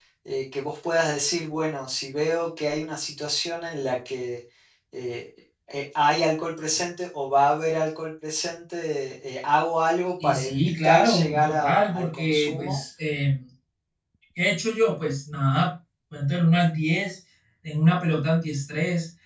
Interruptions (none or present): present